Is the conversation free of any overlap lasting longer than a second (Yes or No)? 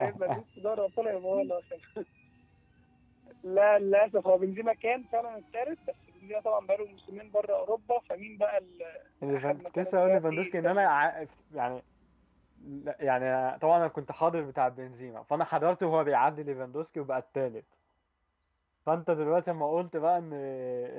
No